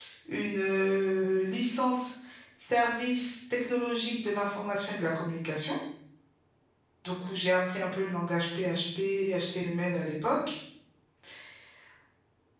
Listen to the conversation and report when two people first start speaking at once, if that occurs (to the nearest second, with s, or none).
none